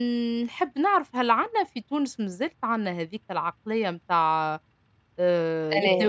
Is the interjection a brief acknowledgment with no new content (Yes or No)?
Yes